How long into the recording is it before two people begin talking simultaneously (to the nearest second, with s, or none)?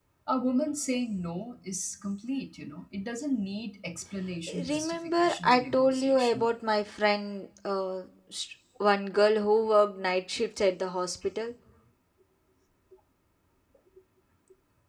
4 s